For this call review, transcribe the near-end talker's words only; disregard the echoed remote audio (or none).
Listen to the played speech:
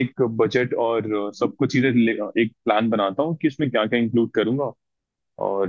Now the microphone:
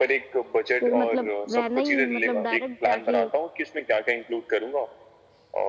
फिर मतलब रहना ही मतलब डायरेक्ट जाके